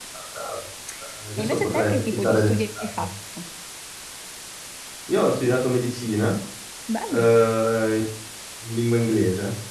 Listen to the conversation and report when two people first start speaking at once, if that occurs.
1 s

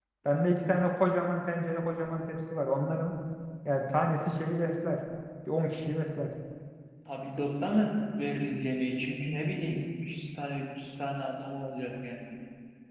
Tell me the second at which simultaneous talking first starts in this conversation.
none

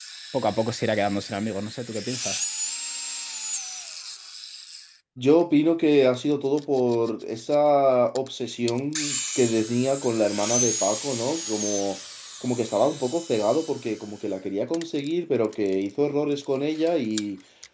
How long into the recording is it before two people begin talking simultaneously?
none

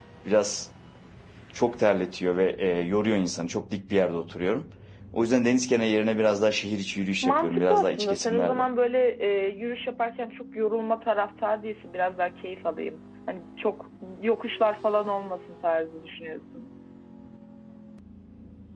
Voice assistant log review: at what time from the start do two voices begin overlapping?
7 s

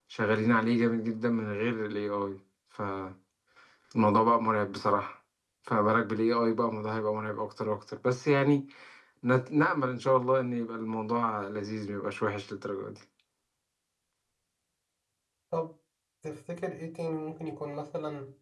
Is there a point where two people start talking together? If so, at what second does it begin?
none

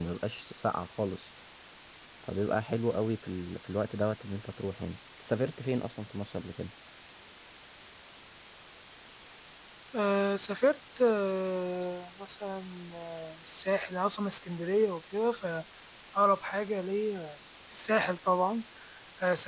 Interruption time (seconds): none

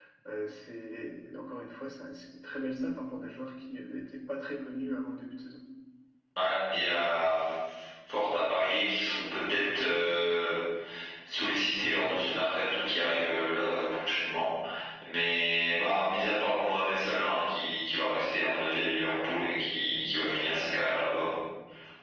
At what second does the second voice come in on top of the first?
none

